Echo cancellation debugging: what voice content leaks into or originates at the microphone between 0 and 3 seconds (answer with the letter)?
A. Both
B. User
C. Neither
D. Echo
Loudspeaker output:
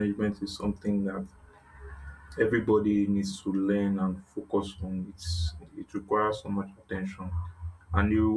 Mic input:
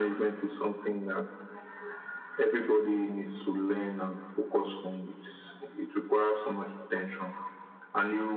D